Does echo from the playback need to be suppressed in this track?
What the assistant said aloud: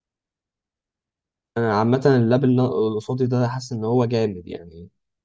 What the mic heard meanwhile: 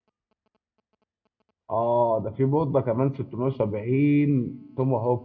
No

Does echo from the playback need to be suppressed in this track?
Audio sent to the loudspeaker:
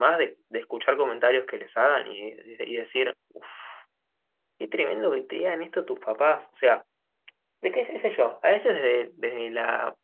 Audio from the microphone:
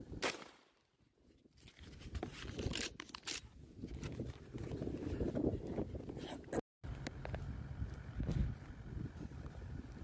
No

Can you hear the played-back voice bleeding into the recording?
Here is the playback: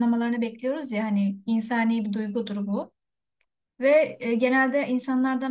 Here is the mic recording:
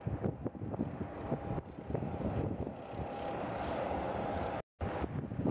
No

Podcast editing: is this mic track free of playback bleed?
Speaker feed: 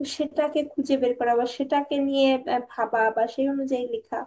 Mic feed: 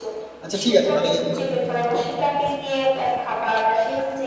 No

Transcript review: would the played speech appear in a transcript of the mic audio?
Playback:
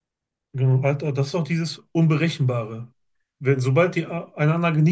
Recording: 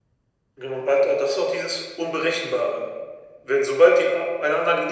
Yes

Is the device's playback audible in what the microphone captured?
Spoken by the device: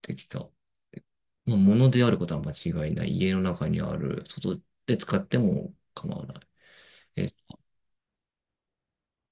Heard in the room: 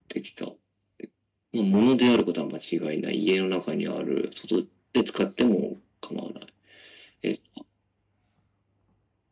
Yes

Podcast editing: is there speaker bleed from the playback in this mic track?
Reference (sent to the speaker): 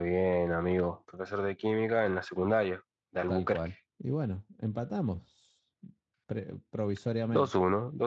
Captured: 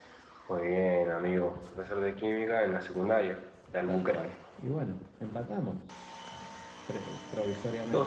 Yes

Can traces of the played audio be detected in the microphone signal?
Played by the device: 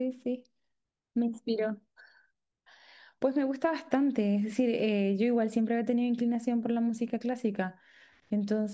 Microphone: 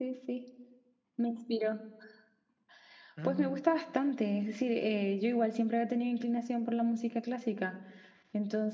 Yes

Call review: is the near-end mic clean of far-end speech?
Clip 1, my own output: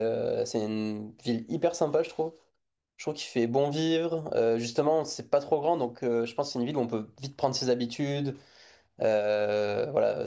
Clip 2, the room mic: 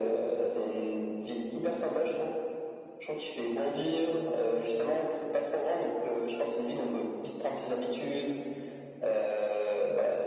No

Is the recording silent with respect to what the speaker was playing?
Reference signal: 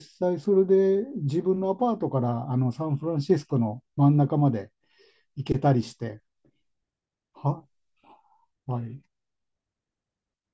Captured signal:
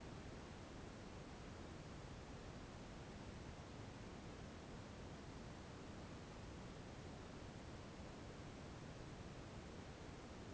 Yes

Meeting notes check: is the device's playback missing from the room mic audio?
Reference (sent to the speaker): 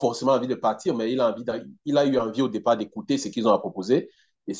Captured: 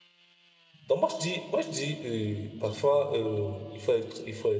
Yes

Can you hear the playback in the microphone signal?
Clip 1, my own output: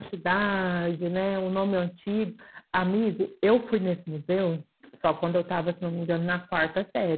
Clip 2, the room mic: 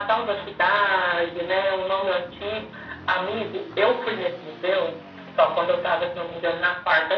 Yes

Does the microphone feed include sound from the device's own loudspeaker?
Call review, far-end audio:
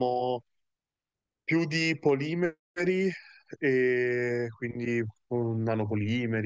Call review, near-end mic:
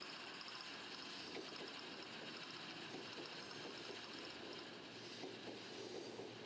No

